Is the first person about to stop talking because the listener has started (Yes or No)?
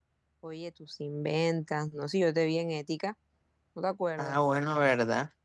Yes